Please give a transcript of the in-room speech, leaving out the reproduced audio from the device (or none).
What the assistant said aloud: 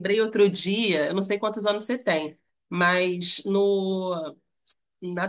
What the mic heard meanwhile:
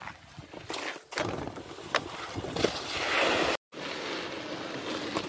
none